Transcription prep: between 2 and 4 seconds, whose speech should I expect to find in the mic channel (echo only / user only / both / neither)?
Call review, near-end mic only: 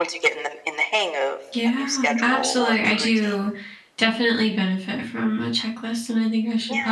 both